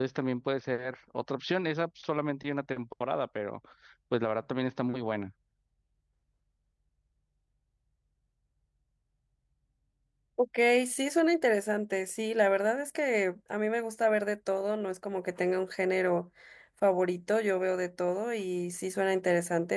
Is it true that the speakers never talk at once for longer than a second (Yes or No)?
Yes